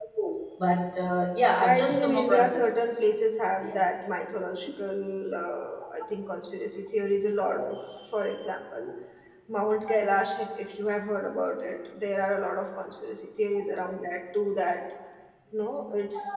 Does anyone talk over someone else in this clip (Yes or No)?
Yes